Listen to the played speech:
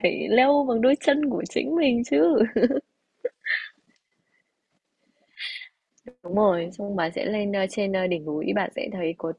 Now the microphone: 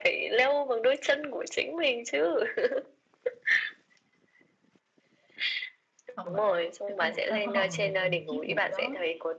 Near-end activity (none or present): present